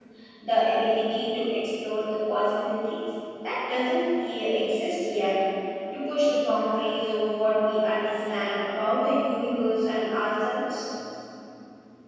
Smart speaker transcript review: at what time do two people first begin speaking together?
none

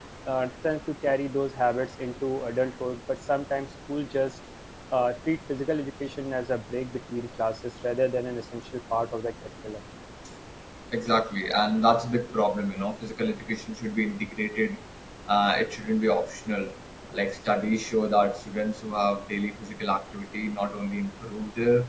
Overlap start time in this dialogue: none

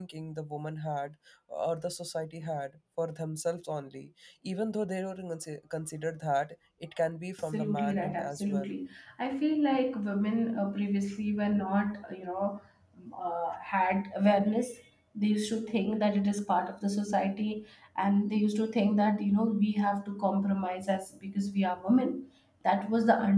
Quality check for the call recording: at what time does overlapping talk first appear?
8 s

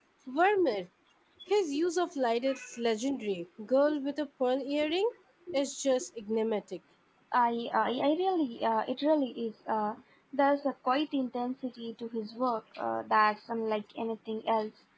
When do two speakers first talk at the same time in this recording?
none

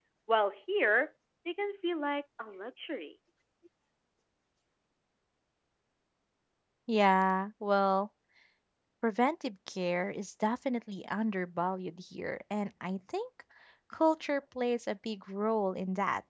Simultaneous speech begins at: none

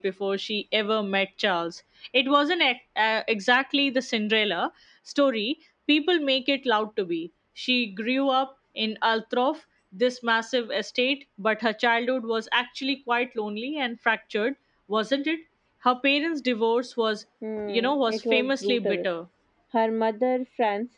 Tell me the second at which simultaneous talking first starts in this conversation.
18 s

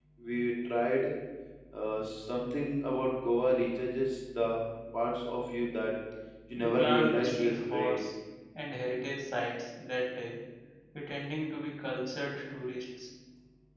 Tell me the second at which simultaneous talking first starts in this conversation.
7 s

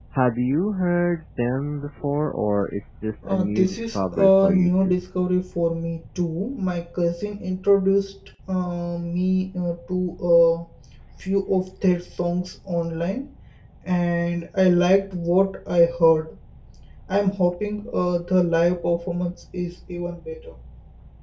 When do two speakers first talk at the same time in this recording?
3 s

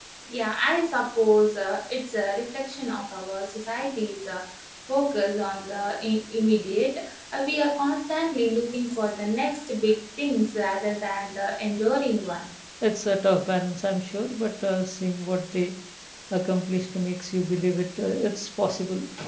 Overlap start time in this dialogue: none

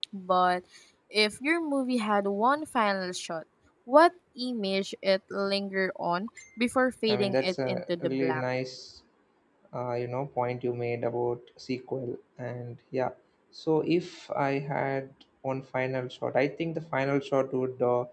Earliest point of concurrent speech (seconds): 7 s

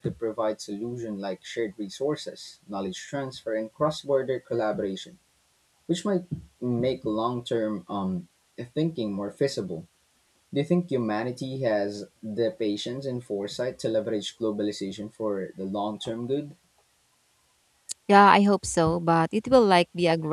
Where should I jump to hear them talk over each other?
none

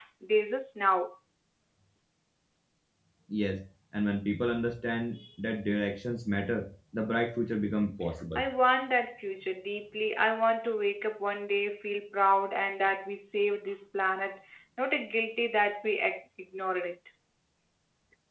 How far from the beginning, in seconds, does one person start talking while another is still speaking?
none

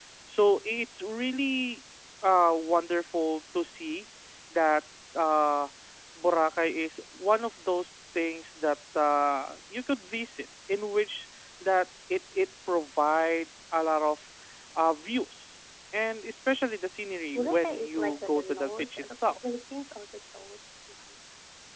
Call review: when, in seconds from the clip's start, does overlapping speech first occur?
17 s

